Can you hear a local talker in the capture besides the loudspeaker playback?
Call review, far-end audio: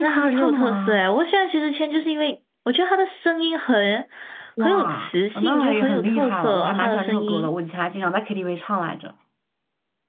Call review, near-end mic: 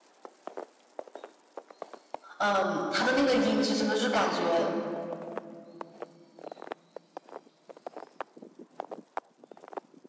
Yes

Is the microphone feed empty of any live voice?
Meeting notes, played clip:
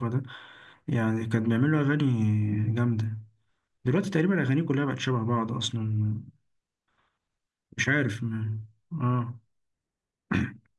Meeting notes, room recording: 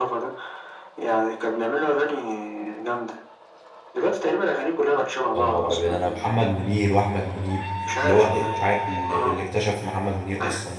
No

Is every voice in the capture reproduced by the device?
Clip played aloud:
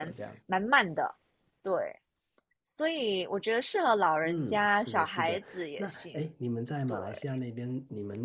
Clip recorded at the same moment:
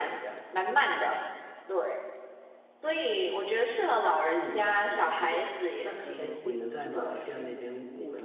No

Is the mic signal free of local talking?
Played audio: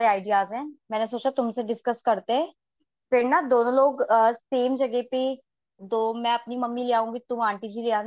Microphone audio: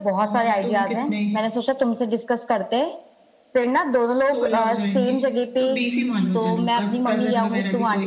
No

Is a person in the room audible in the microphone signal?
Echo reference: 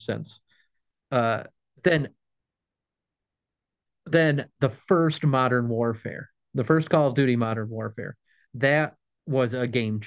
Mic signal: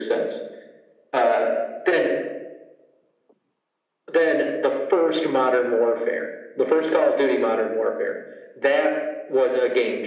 No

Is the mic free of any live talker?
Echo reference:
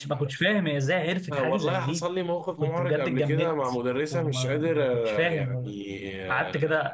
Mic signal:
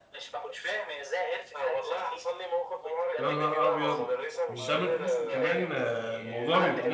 No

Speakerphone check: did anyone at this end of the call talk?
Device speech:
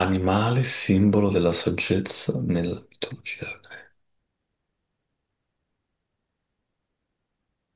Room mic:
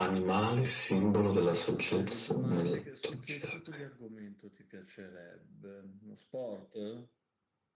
Yes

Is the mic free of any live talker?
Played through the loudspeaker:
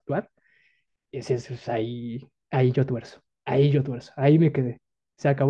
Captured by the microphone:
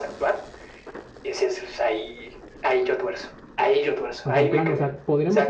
No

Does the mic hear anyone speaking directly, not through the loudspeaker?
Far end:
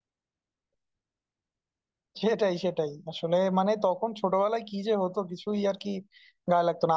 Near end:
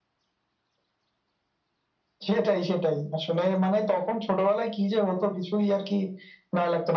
No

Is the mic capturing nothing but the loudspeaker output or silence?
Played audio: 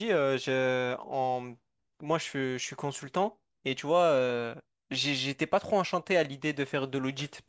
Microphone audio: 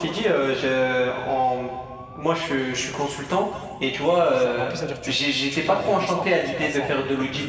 No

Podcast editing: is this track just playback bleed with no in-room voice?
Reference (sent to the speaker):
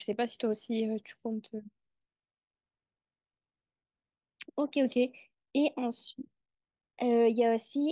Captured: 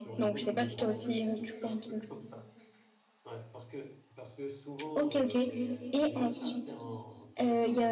No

